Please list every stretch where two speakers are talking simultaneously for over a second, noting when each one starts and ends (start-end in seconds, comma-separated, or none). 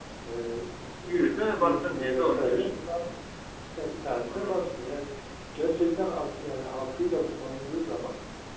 1.5-3.1